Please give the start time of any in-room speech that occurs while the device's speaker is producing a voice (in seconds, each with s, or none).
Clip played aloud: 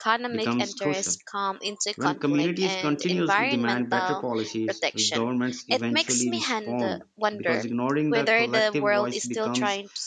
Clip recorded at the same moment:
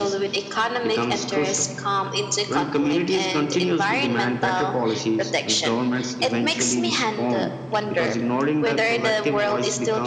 none